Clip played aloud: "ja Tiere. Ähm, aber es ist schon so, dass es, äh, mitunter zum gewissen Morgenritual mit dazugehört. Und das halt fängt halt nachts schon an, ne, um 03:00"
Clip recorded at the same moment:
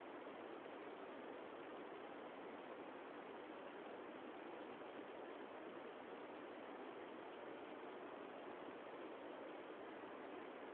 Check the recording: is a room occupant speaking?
No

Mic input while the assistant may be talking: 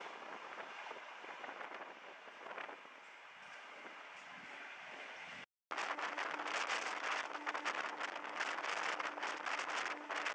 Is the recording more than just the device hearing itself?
No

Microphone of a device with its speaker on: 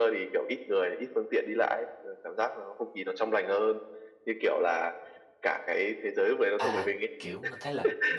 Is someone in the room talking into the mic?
Yes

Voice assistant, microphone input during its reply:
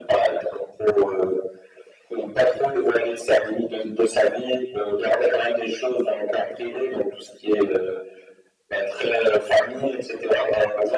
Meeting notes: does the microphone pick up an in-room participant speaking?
No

